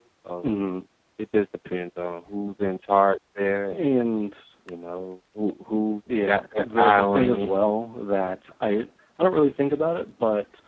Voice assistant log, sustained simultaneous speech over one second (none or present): present